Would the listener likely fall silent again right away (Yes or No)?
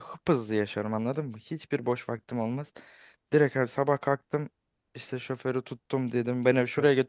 Yes